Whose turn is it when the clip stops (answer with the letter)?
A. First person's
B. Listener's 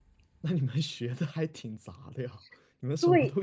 A